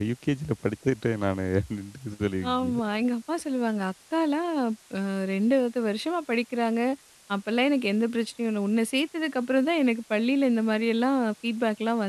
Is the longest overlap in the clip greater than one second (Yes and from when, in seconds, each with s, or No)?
No